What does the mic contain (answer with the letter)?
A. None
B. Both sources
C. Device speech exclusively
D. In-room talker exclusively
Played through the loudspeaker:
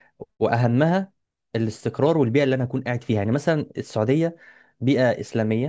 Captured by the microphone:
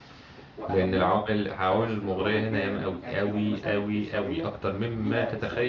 B